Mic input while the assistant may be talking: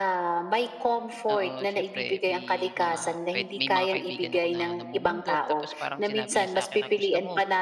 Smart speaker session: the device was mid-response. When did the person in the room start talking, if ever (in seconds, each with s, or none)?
1.3 s